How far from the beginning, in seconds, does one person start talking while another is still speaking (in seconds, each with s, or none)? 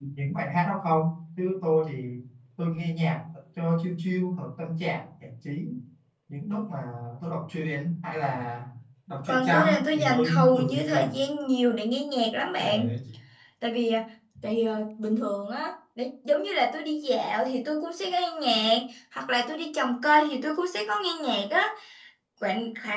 9.3 s